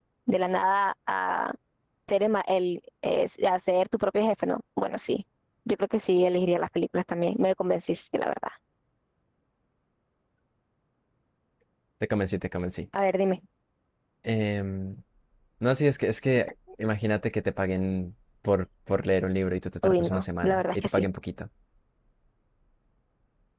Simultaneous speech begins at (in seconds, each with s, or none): 19.8 s